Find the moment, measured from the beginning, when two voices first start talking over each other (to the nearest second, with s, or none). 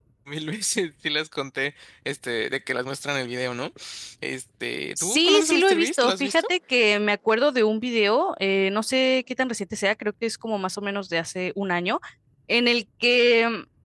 5 s